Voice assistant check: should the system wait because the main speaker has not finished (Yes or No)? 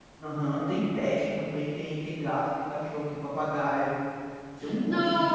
No